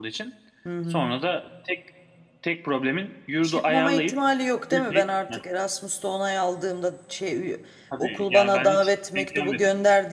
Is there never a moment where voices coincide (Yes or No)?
No